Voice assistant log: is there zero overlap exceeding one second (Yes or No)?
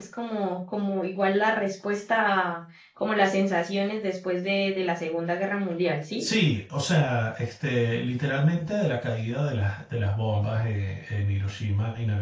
Yes